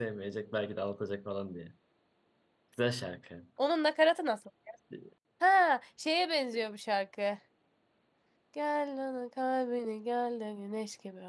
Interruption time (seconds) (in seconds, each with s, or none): none